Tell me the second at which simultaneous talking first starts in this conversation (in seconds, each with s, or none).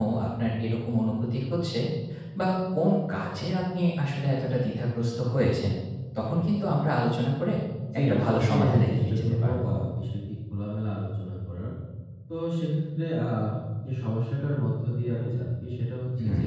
8.0 s